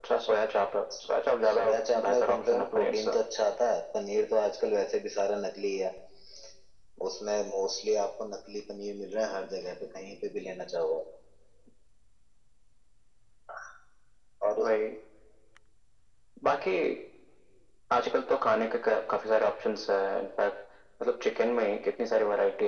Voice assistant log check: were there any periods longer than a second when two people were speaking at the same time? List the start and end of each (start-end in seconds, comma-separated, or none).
1.5-3.1